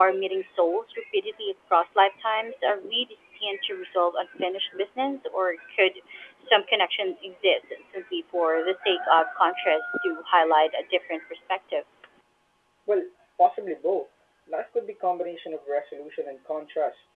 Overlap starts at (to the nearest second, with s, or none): none